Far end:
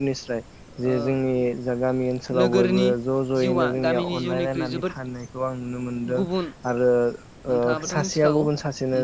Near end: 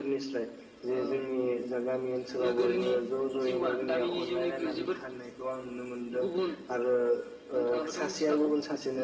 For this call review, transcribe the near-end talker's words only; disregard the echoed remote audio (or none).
none